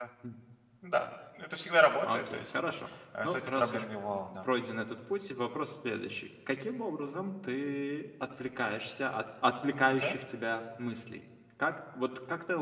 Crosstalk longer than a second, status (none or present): present